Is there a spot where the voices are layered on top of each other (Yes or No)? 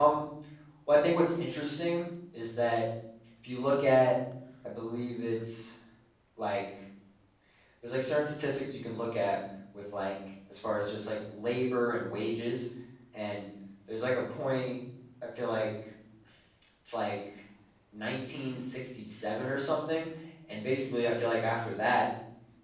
No